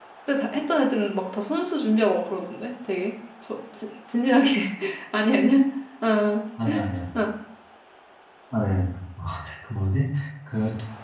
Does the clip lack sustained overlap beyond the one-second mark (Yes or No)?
Yes